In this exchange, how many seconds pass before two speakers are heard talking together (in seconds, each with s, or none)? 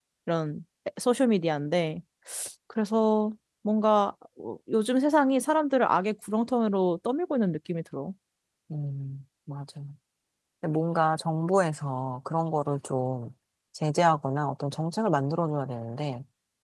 none